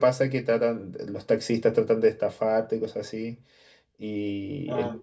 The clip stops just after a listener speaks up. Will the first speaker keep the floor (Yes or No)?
Yes